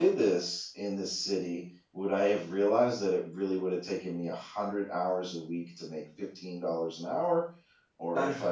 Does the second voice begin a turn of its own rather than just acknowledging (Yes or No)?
No